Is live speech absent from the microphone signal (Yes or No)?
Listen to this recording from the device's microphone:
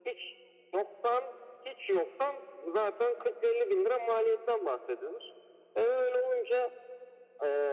Yes